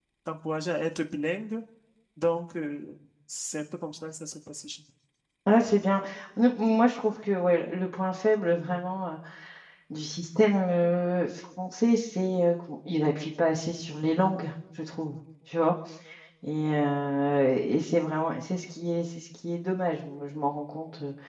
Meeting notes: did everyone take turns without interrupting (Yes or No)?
Yes